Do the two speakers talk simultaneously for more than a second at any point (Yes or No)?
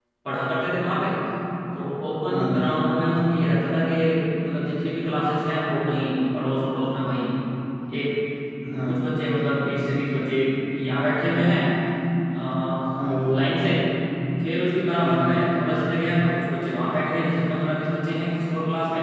No